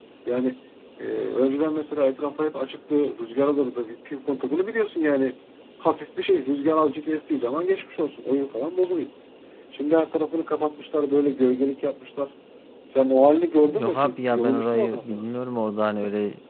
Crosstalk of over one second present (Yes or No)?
Yes